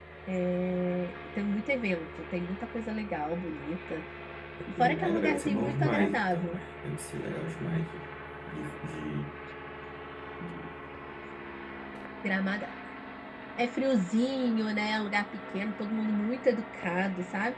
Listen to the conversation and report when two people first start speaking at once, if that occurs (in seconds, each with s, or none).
4.8 s